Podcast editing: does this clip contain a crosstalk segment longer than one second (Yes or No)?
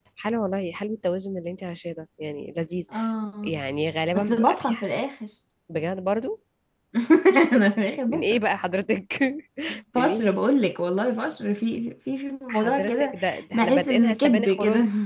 Yes